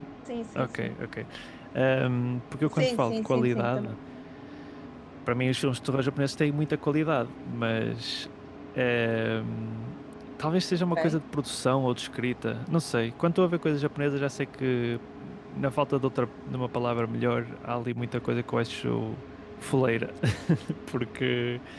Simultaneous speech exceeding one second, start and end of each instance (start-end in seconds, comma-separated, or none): 2.7-3.9